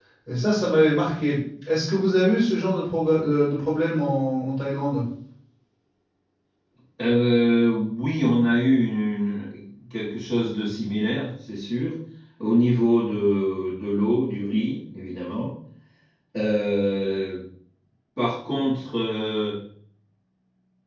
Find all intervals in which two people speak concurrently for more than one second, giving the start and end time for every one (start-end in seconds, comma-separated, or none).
none